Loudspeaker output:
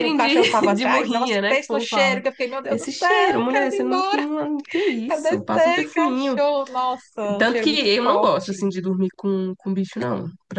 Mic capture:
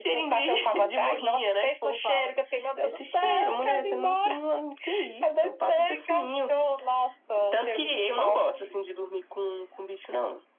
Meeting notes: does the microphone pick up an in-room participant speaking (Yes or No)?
No